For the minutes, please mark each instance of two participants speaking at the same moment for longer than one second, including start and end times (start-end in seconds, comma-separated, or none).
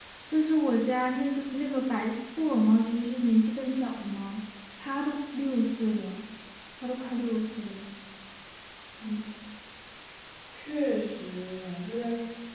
none